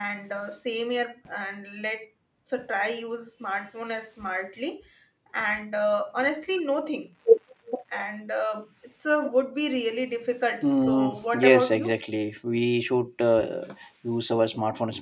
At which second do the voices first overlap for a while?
10.6 s

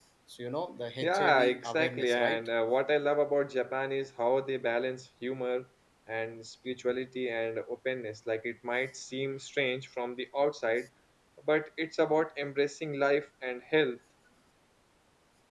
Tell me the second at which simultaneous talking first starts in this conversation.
1.0 s

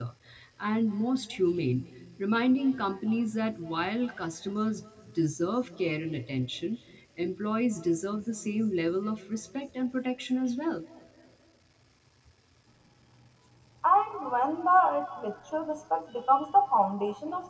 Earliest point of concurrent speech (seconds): none

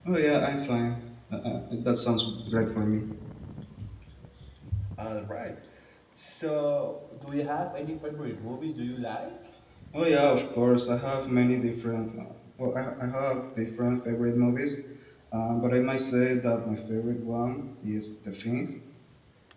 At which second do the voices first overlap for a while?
none

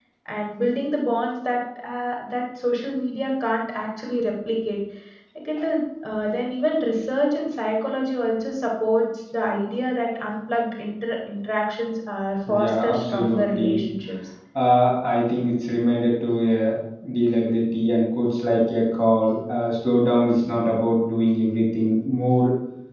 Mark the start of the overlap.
12.5 s

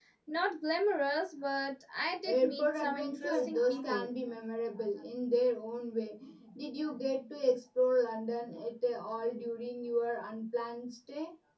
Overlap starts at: 2.2 s

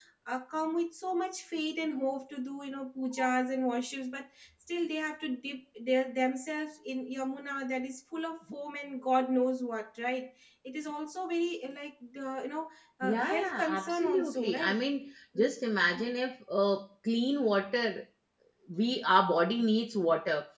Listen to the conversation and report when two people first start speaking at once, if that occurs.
13.0 s

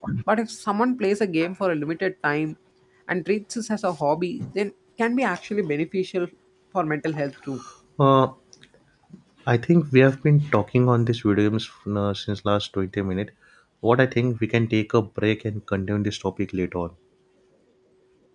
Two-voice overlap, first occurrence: none

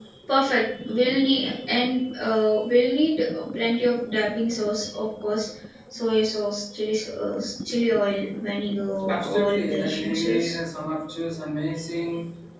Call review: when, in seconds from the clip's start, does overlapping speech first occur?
9.1 s

